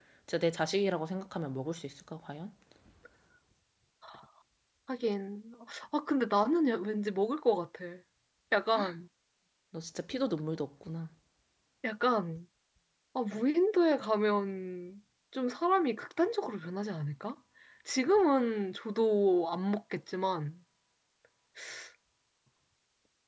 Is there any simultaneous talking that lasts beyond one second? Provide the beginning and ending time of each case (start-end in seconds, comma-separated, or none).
none